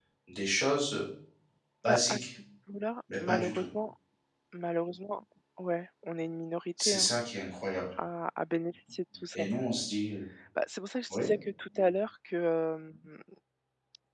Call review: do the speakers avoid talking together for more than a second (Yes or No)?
Yes